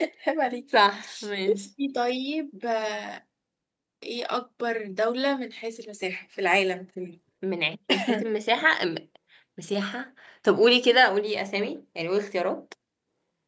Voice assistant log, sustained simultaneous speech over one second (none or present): none